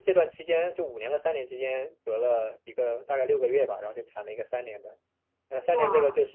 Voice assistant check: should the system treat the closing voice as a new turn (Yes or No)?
No